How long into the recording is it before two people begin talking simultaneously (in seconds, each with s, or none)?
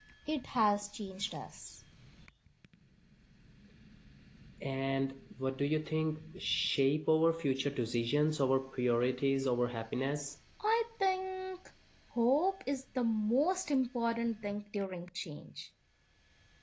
none